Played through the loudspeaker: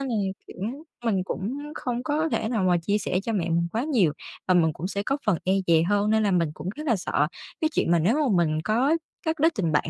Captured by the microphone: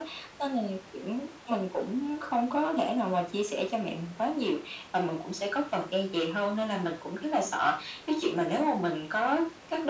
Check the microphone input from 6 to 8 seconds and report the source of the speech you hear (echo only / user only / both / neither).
echo only